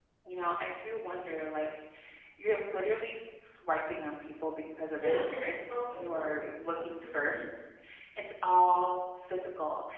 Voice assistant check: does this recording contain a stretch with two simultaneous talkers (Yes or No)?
Yes